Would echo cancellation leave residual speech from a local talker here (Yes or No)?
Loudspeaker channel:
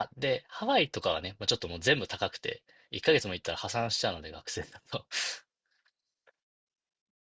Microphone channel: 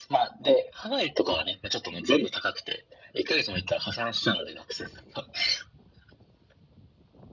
No